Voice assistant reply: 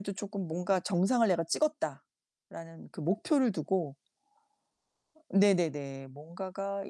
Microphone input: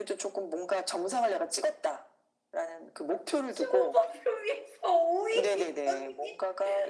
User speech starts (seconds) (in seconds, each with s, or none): 3.5 s